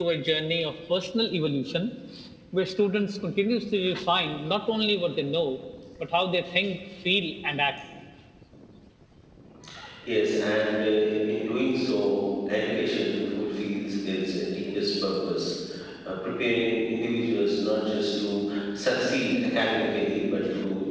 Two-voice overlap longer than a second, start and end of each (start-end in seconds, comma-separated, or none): none